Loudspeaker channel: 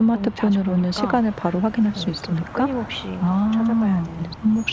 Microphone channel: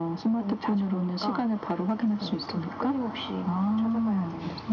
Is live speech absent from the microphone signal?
Yes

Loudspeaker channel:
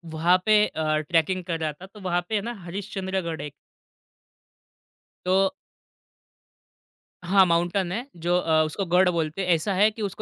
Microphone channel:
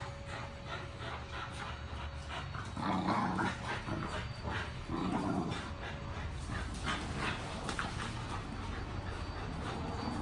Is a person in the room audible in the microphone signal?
No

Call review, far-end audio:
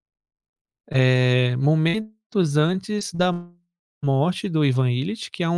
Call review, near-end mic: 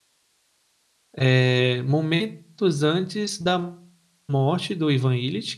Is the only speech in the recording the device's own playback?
Yes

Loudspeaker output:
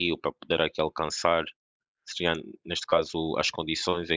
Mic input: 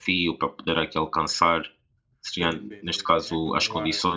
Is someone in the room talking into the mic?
Yes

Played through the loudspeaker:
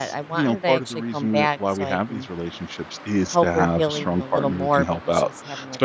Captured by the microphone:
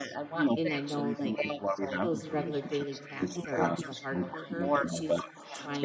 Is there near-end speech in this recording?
Yes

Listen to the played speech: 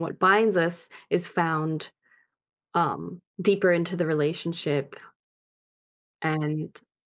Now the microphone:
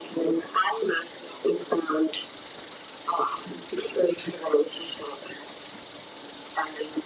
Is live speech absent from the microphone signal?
Yes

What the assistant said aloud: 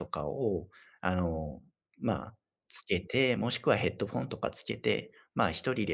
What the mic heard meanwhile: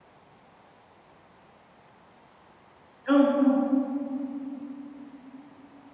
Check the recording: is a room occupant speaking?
Yes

